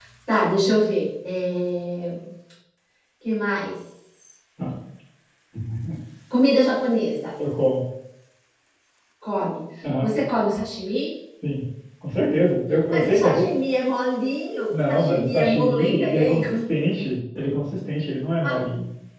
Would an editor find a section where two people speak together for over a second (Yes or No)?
Yes